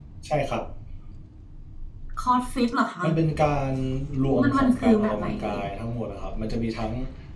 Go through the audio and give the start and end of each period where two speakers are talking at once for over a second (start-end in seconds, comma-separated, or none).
4.4-5.6